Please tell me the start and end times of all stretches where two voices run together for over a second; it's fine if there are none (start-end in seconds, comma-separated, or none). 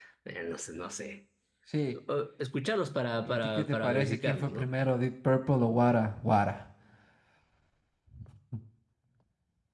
3.2-4.7